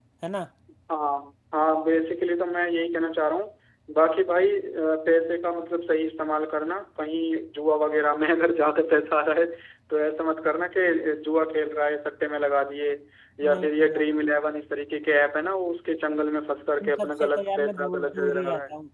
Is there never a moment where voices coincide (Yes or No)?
No